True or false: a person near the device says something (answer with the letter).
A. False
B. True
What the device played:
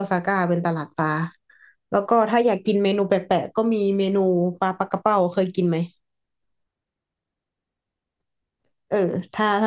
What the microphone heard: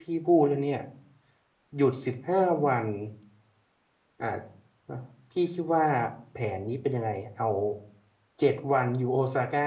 B